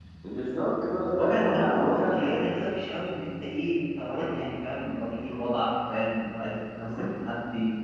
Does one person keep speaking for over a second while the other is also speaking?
Yes, from 1.1 s

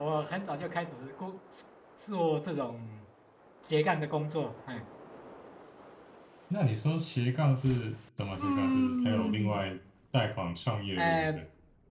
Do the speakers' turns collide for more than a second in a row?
Yes, from 8.4 s

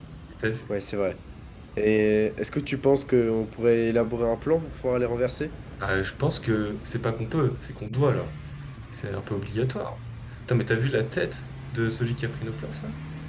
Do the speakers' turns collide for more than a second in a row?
No

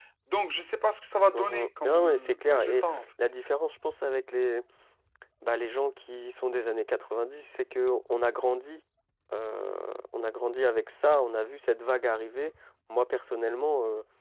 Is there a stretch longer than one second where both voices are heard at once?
Yes, from 1.3 s

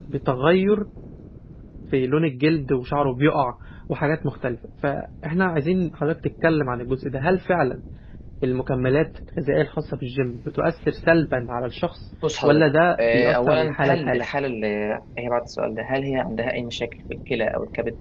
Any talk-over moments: Yes, from 12.2 s

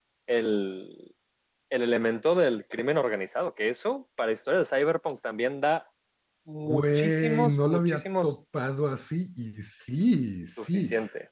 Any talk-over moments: Yes, from 6.7 s

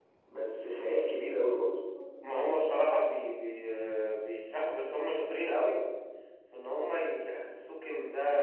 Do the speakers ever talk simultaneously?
No

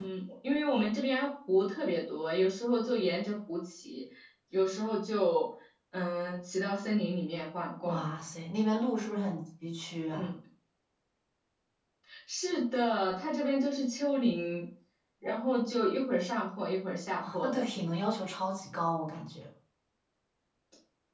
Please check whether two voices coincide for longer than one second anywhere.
No

